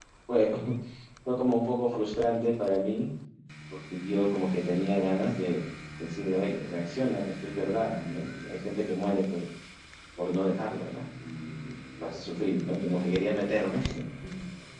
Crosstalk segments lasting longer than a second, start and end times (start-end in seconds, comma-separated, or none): none